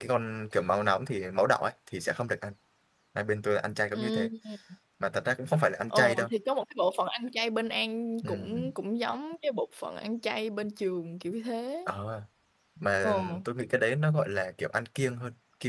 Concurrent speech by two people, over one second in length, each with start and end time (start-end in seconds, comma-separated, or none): none